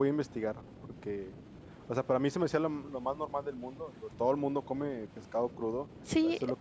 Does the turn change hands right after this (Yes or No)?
No